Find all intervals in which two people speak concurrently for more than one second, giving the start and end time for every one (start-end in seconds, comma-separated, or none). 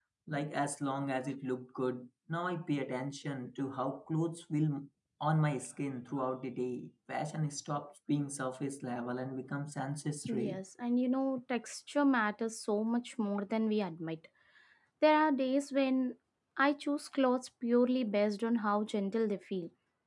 none